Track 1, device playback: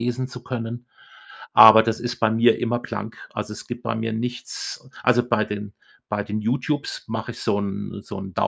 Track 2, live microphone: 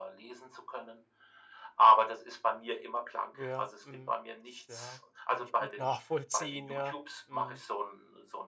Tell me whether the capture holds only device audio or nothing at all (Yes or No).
No